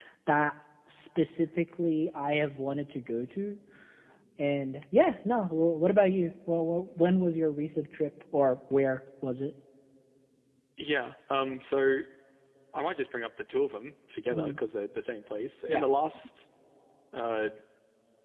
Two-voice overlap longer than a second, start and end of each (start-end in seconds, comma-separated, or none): none